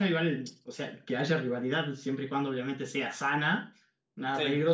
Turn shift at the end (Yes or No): No